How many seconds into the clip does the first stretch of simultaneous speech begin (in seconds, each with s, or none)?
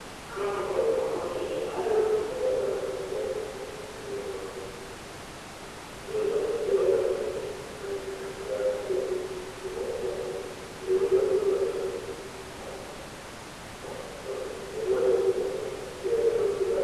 0.7 s